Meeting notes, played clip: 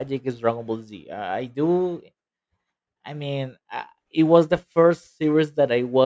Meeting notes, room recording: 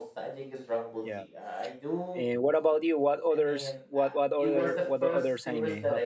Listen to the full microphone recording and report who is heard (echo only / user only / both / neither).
both